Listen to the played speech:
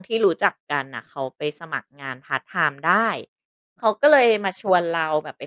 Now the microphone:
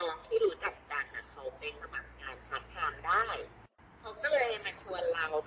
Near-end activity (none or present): none